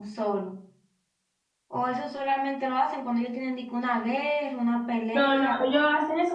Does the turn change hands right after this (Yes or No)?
Yes